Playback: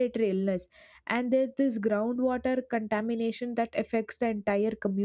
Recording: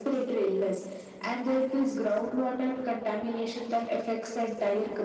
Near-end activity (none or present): none